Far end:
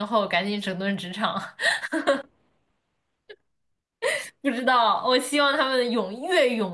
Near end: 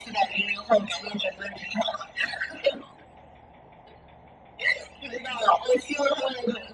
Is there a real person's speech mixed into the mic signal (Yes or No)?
No